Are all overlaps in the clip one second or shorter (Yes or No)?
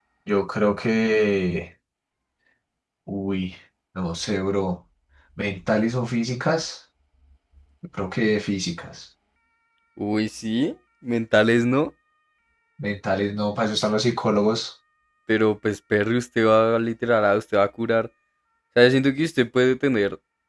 Yes